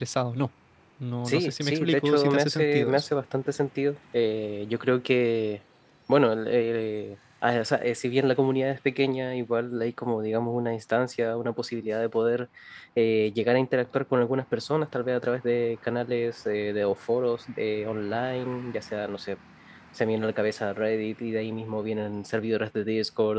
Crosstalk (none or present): present